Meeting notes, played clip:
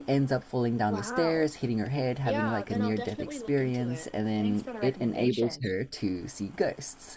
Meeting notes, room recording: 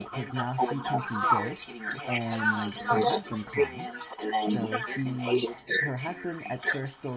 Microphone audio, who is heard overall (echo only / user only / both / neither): both